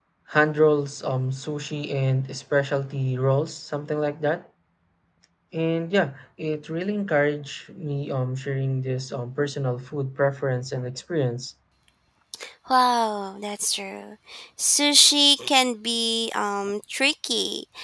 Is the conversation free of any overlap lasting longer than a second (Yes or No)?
Yes